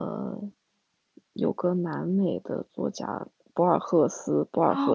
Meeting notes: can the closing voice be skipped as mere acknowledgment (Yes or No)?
No